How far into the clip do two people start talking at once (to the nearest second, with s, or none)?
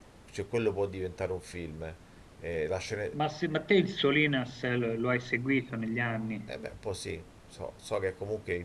none